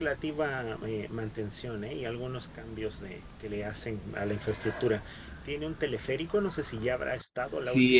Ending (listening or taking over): taking over